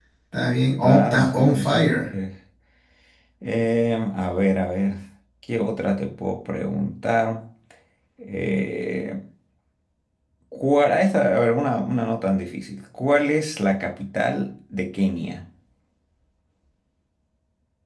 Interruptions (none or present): present